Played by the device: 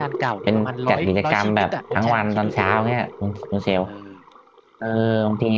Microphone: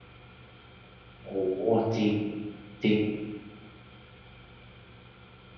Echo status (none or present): none